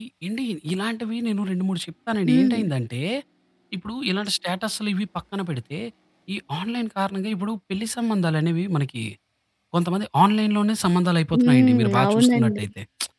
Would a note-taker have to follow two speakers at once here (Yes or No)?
Yes